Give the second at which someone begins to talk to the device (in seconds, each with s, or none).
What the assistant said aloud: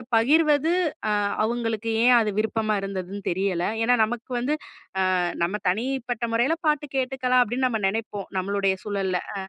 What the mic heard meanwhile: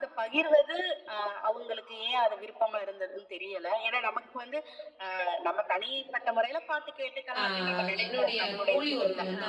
7.4 s